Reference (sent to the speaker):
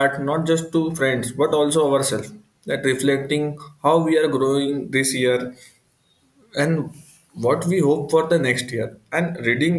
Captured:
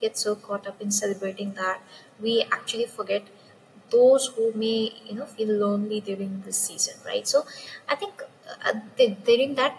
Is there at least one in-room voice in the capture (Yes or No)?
Yes